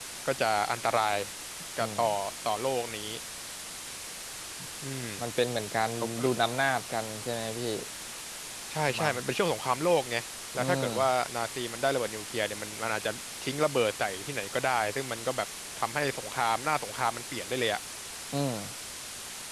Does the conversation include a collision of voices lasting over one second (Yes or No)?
No